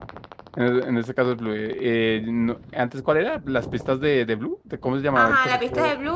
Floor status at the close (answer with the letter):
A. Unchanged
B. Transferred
B